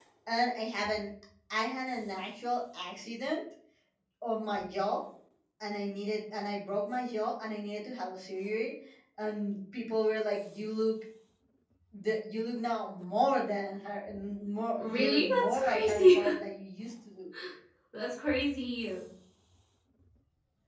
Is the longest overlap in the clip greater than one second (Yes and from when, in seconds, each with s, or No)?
Yes, from 14.8 s